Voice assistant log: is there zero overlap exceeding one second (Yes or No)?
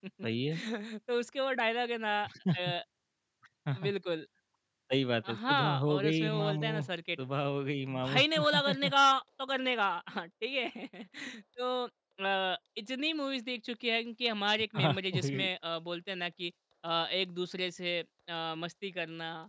No